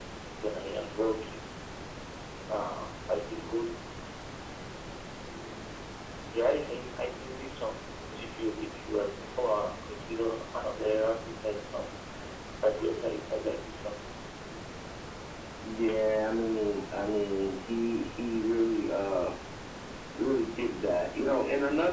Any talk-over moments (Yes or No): No